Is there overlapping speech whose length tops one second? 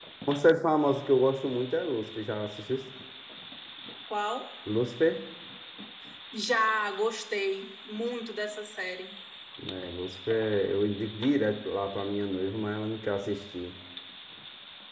No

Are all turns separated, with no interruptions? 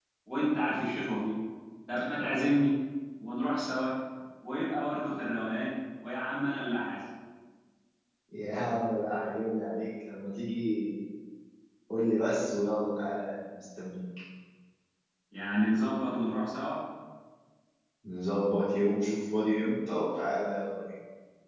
Yes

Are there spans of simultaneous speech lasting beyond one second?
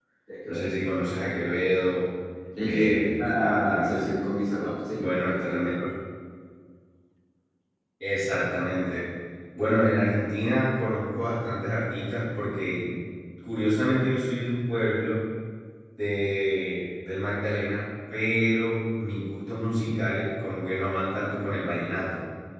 Yes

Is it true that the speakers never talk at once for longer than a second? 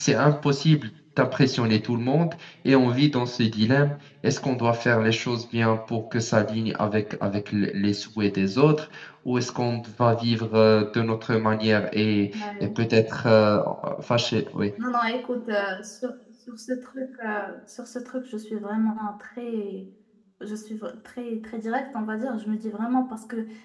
Yes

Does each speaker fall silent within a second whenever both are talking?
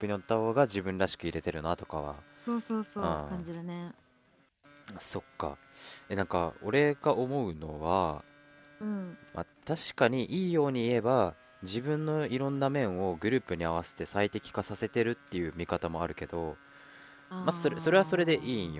No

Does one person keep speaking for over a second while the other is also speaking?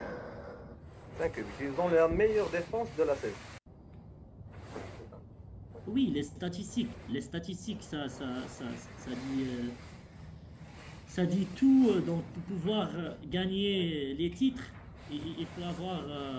No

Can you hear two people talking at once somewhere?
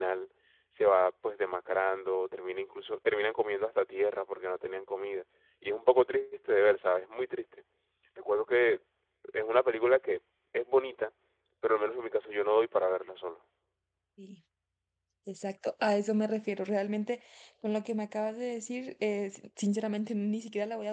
No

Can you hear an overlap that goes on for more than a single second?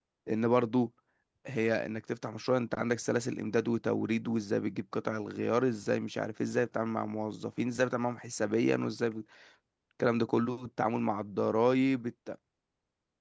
No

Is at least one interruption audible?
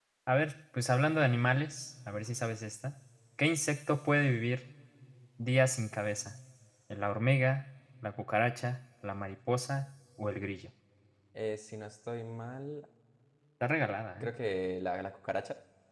No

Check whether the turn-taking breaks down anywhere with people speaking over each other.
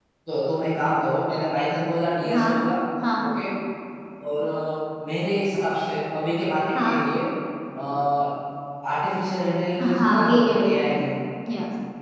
Yes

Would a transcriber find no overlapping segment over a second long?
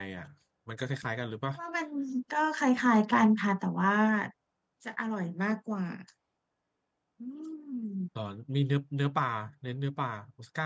Yes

